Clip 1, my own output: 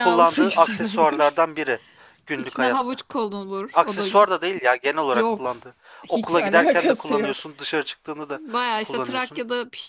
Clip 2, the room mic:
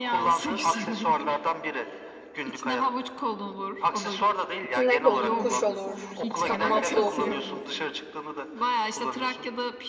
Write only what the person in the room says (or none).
Sinek olur, kuş olur, kanatlı olur.